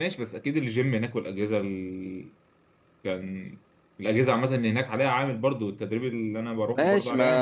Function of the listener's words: taking over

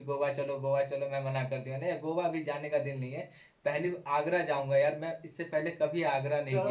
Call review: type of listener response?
taking over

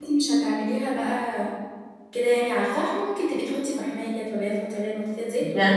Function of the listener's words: taking over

